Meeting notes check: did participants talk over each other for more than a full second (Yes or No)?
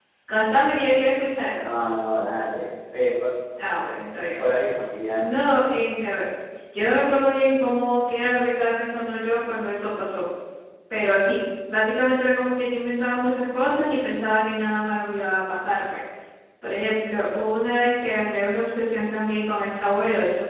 No